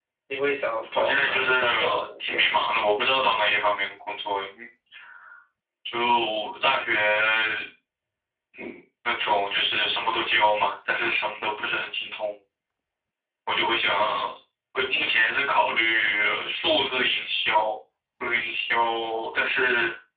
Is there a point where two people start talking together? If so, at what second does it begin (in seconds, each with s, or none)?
0.9 s